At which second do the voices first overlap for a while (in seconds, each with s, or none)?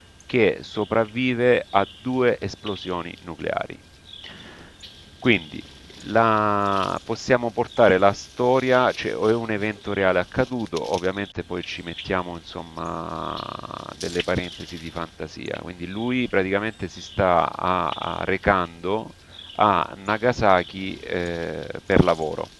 none